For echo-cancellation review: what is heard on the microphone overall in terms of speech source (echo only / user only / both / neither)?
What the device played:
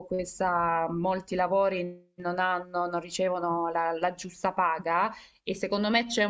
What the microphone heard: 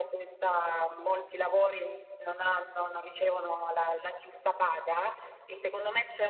echo only